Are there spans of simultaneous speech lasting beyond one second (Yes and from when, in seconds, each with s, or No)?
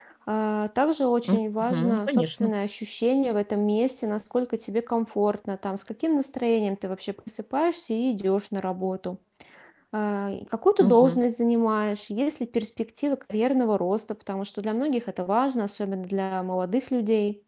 Yes, from 1.2 s